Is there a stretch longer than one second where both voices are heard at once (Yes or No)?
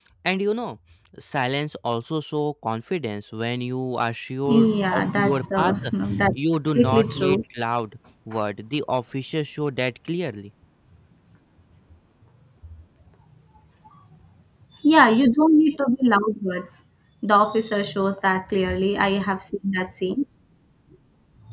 Yes